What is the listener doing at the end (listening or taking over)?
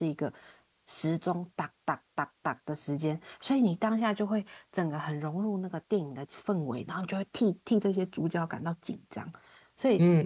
taking over